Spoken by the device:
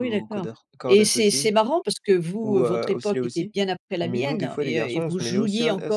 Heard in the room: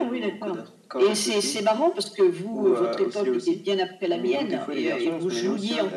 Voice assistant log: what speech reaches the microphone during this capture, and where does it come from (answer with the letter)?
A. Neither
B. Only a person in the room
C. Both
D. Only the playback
D